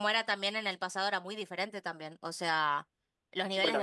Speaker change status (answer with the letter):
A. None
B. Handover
A